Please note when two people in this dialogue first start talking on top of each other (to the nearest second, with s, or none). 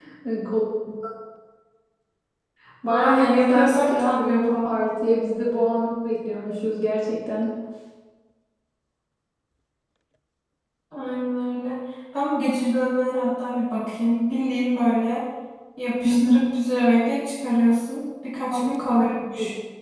3 s